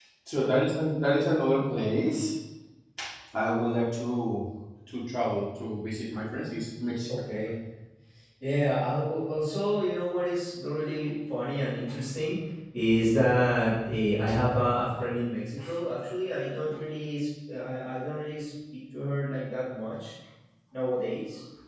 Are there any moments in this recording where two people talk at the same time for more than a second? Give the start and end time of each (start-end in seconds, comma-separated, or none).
none